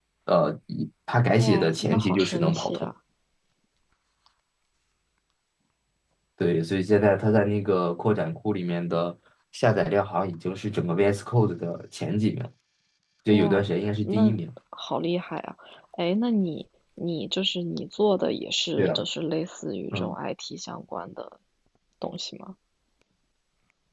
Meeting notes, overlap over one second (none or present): present